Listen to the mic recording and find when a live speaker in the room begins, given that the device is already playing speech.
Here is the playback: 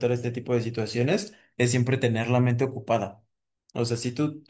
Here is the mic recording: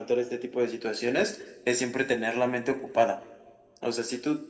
none

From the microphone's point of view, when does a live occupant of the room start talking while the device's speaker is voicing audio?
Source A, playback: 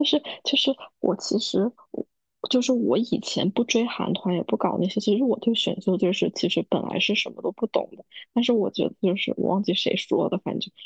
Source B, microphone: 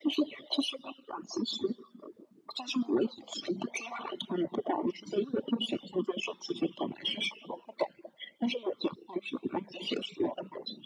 none

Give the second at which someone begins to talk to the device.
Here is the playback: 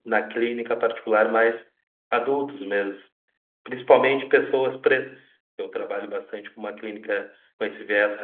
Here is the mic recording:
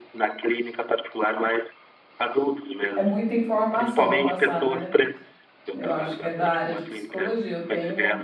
2.9 s

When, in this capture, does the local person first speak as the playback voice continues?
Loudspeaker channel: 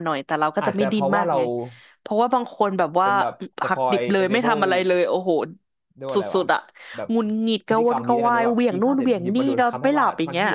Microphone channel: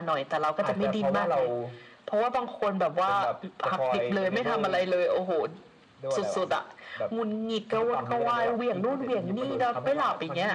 none

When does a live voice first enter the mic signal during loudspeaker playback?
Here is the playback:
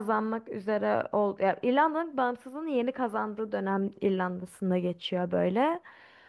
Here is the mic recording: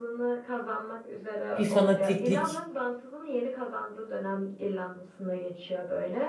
1.6 s

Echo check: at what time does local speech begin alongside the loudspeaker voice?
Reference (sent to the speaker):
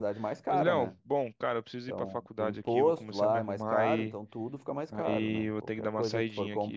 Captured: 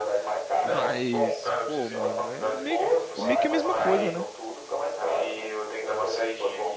0.6 s

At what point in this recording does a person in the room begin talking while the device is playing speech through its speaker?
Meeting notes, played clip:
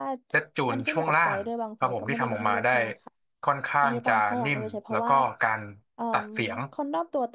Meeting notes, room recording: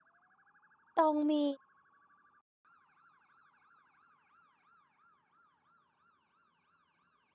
0.9 s

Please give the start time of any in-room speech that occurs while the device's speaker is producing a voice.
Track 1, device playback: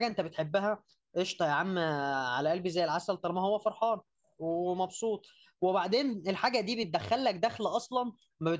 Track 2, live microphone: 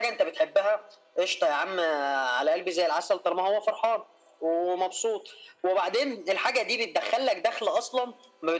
none

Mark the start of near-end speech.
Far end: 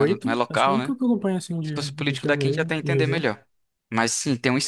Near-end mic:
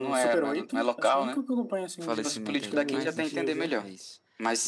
2.0 s

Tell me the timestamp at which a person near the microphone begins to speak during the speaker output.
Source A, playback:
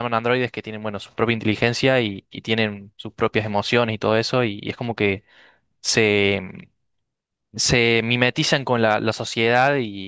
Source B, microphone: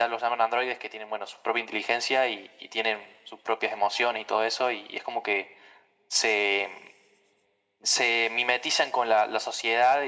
none

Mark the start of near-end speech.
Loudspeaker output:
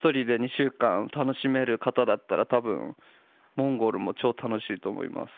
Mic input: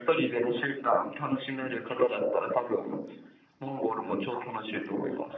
none

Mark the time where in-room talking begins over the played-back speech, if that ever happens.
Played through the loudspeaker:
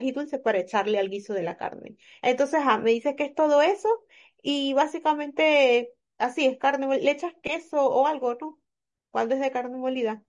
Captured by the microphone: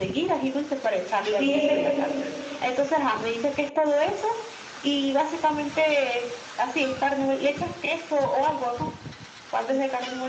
1.3 s

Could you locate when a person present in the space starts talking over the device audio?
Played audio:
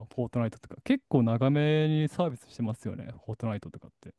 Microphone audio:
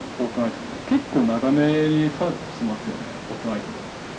none

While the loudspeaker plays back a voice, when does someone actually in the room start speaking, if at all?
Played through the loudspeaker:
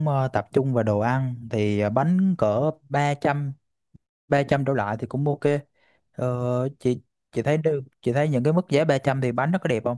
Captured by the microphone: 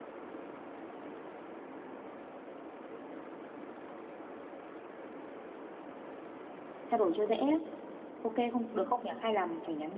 6.8 s

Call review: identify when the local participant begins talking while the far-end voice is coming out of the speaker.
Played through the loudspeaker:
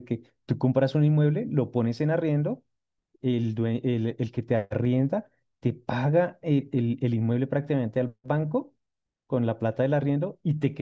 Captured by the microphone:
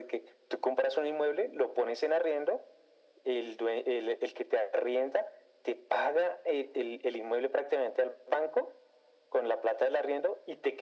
none

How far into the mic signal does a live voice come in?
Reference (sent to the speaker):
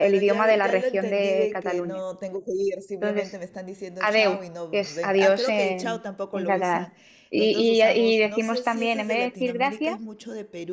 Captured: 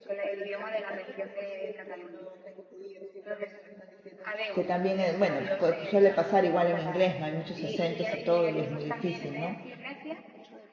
4.5 s

